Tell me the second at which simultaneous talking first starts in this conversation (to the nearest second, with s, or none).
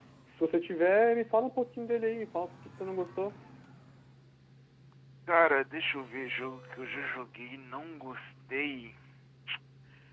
none